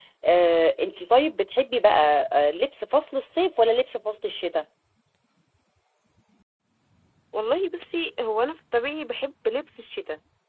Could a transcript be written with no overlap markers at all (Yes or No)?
Yes